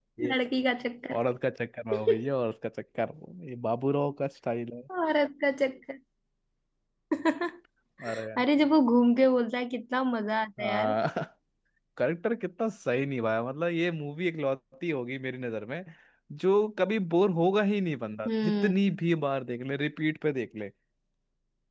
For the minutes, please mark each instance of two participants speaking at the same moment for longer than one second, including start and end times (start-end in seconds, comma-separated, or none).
none